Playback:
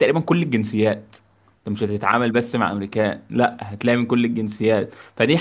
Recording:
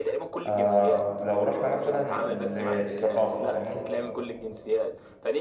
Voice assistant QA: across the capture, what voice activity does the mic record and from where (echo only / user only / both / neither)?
both